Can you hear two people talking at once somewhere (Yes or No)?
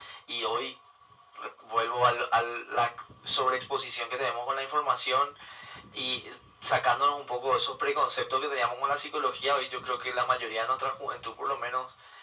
No